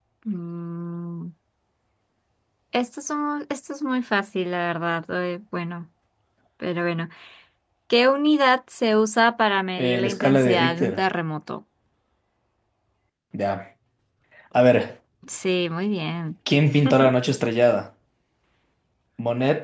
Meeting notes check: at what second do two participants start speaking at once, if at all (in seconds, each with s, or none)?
9.8 s